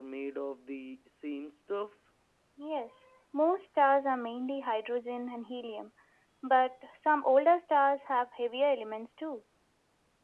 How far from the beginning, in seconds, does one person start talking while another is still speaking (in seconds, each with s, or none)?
none